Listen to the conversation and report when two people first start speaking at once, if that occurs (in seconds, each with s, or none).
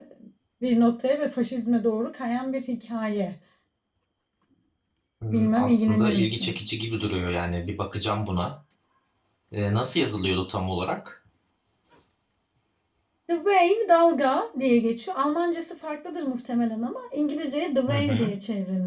5.3 s